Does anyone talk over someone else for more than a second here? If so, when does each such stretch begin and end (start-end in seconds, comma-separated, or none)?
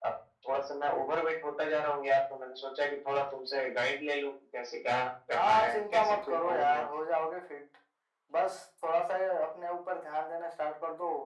5.3-6.8